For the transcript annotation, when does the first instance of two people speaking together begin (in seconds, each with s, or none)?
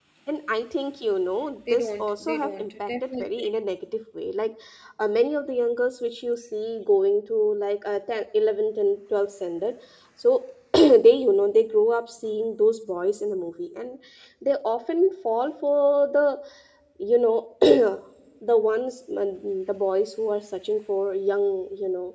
1.7 s